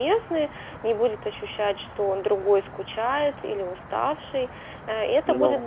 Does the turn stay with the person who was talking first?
Yes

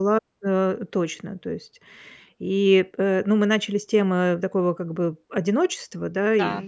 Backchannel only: Yes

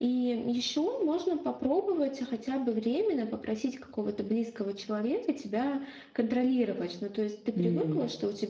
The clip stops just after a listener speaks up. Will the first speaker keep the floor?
Yes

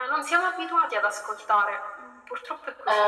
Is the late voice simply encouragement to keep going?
No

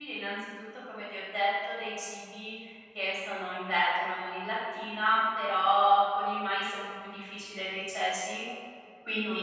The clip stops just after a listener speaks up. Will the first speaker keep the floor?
Yes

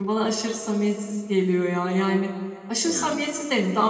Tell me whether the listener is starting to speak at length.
No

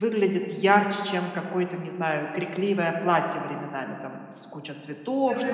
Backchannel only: No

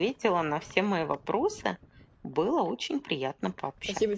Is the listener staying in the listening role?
No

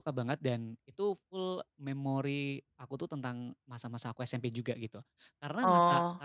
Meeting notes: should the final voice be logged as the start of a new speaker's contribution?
No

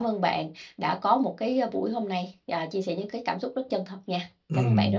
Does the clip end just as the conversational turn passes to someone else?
Yes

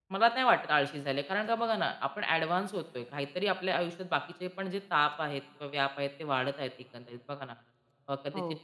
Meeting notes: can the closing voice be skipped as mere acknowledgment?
Yes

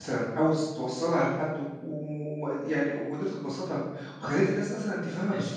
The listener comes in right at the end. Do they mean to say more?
Yes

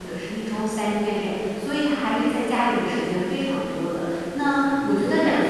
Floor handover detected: No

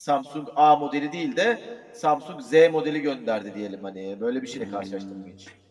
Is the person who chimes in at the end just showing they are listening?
No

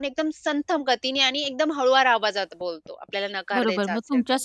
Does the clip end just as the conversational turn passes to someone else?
Yes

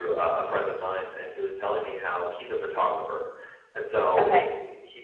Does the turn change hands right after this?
No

